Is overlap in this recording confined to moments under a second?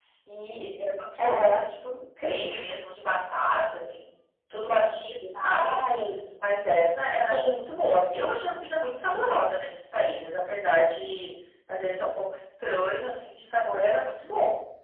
Yes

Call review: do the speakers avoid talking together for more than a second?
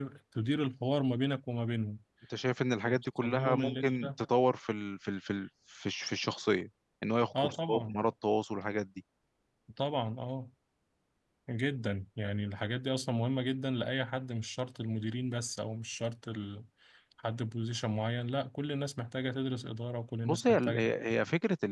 No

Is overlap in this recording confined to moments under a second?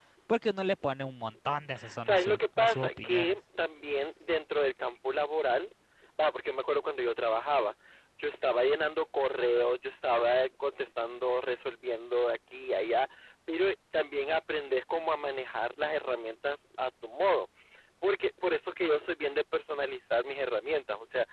No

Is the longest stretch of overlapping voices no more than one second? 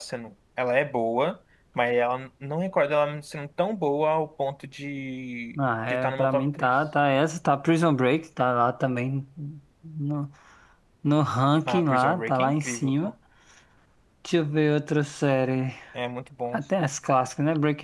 No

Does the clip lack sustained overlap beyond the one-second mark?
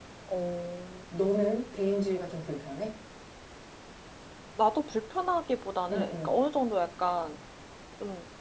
Yes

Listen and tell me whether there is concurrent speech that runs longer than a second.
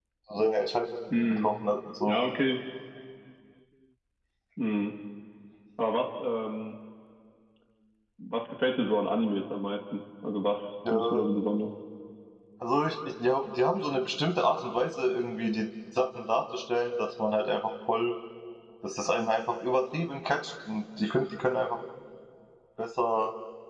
No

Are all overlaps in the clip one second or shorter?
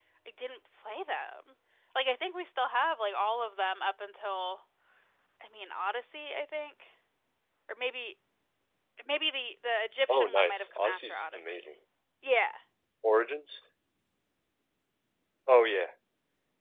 No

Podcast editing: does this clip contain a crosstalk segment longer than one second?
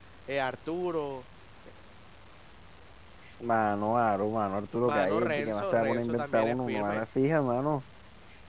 Yes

